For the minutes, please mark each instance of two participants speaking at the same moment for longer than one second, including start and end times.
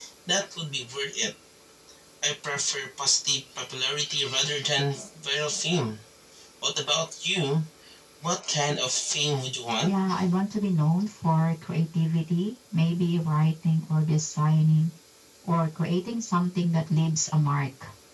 none

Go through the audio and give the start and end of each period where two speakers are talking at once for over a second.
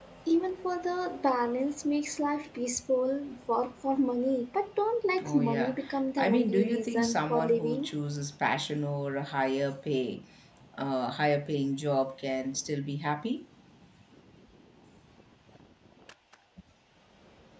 5.2-7.9

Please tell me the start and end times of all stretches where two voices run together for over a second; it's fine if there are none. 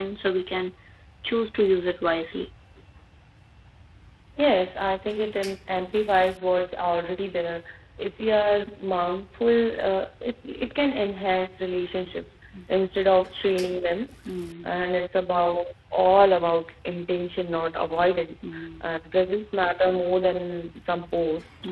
none

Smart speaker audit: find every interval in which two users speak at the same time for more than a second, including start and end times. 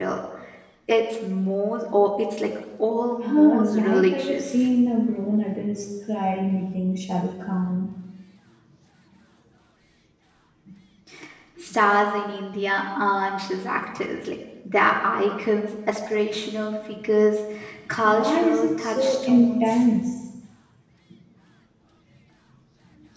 3.2-4.4, 18.1-19.7

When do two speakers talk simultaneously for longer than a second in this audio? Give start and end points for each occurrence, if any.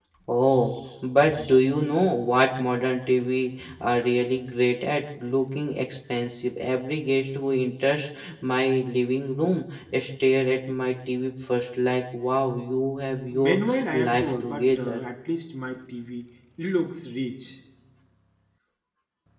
13.3-15.0

